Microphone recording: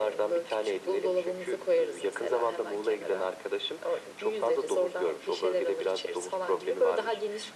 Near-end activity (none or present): none